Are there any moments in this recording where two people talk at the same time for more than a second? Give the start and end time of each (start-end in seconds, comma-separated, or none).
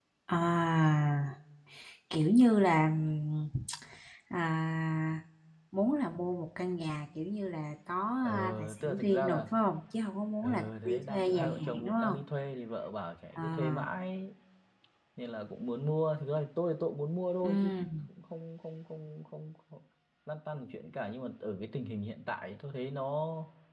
8.2-9.4, 10.4-12.2